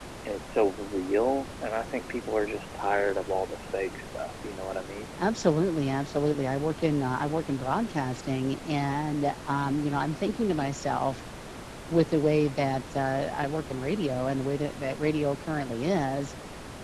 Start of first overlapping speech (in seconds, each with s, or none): none